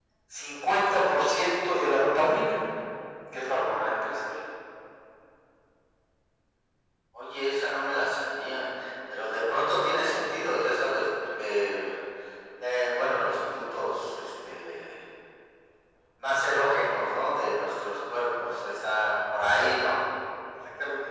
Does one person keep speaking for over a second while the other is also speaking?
No

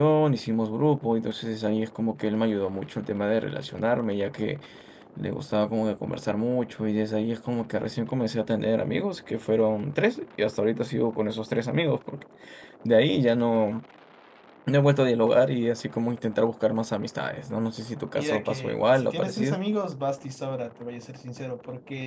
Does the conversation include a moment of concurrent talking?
Yes, from 18.1 s

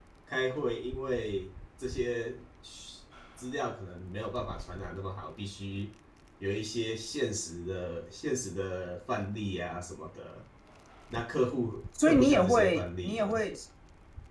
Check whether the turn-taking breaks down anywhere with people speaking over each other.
Yes, from 11.9 s

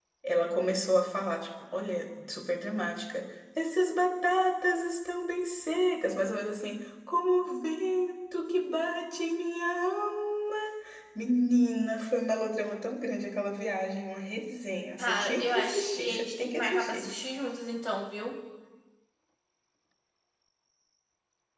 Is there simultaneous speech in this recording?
Yes, from 15.0 s

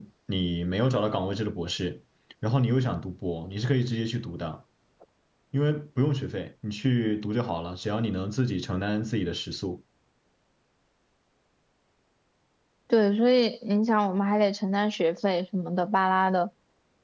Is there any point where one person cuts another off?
No

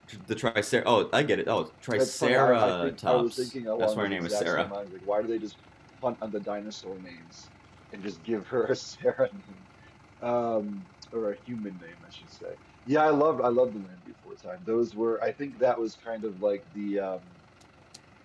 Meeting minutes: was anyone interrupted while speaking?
Yes, from 1.9 s

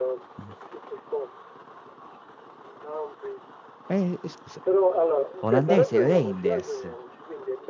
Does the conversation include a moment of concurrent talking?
Yes, from 5.4 s

